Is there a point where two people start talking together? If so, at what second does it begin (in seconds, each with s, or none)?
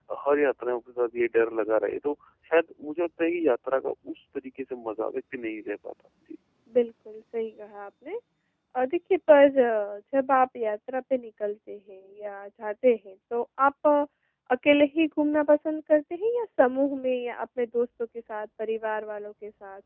none